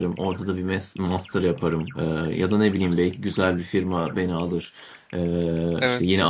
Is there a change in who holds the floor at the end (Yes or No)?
No